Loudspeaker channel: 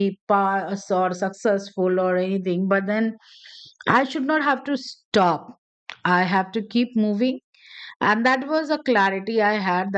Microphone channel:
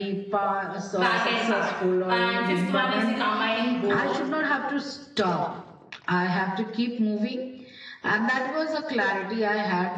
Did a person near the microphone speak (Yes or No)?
Yes